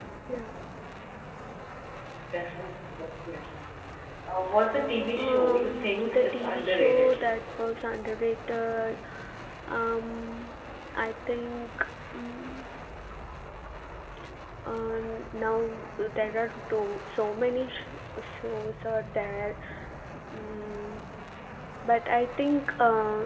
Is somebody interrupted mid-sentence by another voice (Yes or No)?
Yes